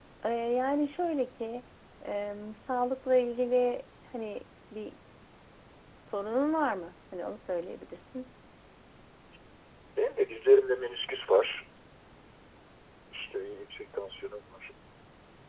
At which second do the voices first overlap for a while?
none

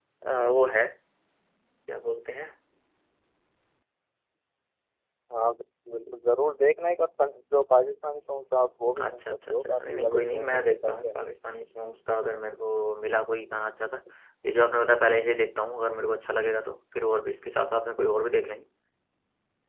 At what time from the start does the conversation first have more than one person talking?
9.0 s

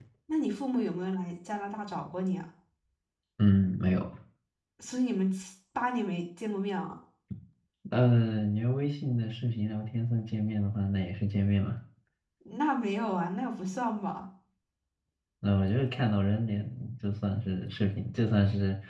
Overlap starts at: none

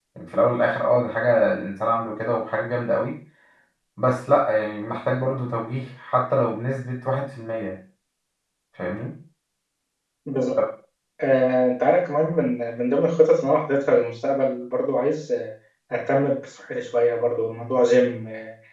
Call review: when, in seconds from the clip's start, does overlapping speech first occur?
none

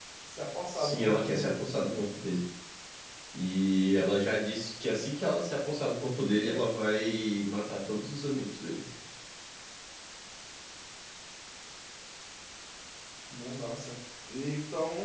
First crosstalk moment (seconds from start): 0.7 s

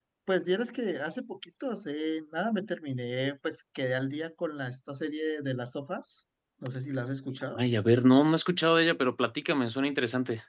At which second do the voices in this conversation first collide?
none

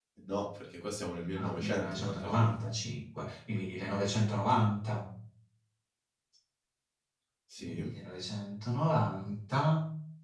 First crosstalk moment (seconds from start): 1.4 s

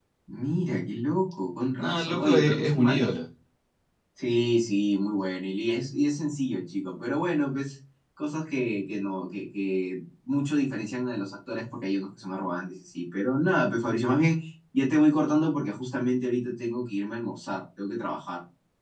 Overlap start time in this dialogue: 1.8 s

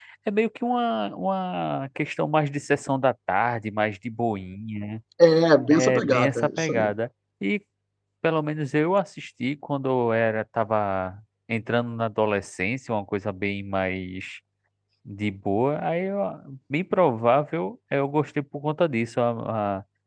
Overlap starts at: 5.7 s

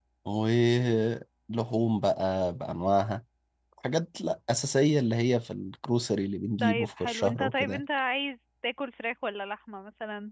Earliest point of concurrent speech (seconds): 6.6 s

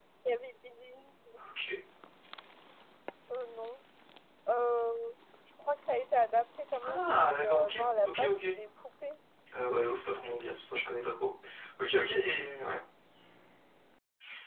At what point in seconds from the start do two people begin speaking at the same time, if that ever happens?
6.8 s

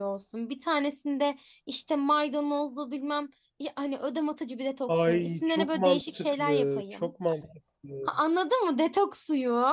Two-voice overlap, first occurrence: 4.9 s

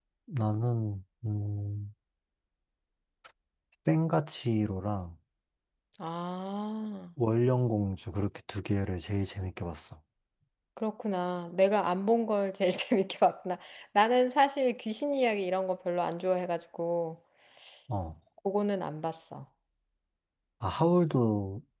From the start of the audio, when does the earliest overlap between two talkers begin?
none

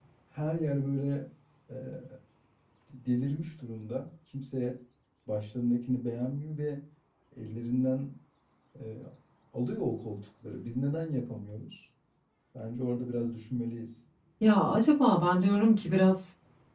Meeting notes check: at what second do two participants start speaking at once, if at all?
none

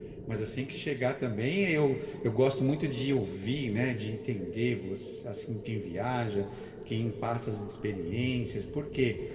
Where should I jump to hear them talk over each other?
none

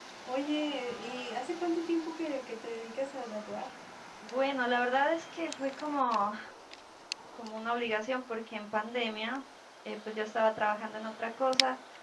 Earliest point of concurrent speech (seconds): none

